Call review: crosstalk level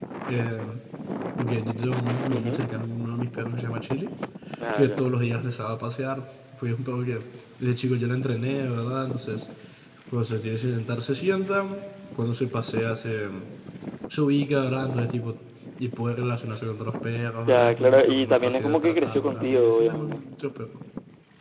present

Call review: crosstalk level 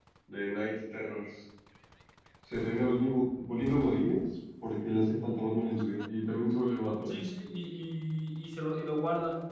none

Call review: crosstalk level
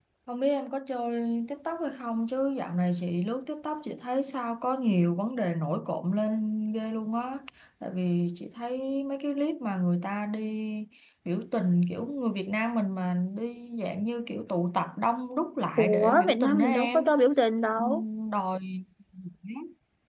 present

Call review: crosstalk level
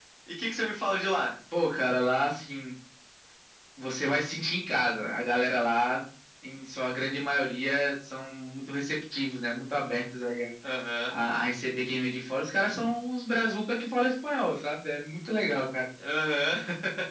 none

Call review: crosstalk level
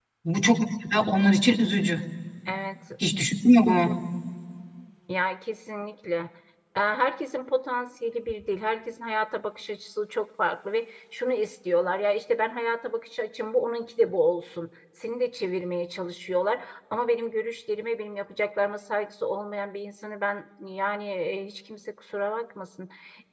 none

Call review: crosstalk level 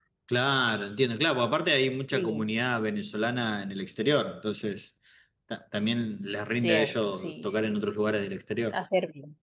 present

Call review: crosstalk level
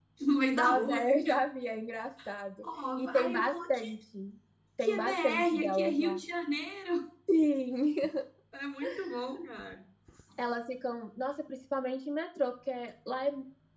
present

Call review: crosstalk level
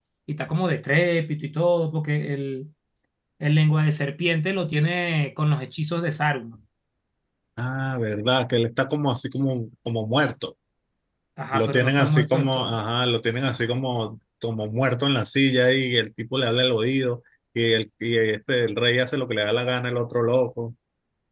present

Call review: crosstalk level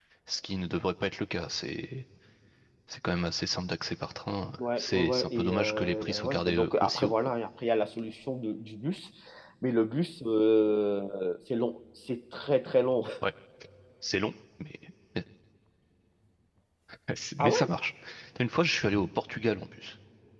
present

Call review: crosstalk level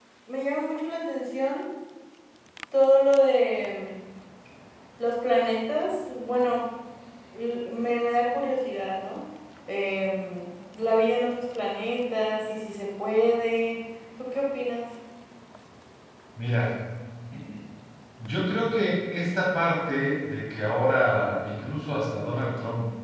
none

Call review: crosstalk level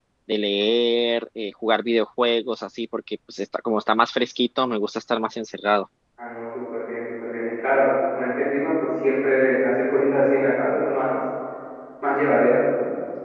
none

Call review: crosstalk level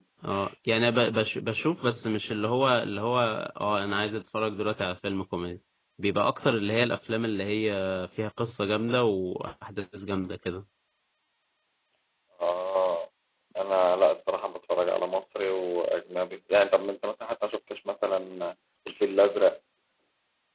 none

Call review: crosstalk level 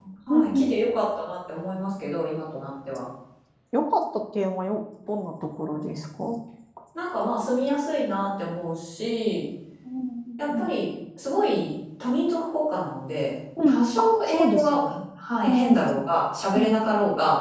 present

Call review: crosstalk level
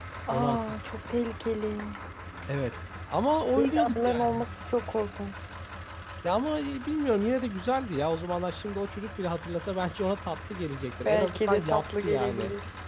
present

